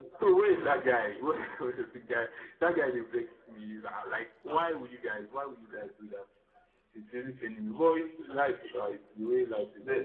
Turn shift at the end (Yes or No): Yes